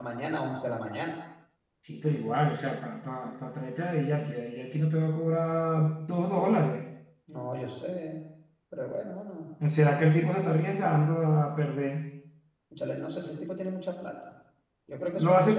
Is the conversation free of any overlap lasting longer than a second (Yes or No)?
Yes